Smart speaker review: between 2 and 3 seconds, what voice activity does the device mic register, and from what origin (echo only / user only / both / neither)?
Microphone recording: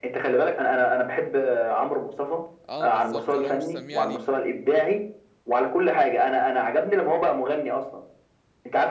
both